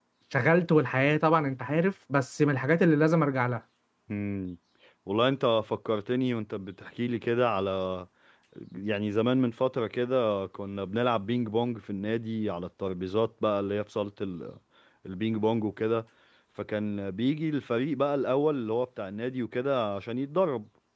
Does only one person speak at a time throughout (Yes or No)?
Yes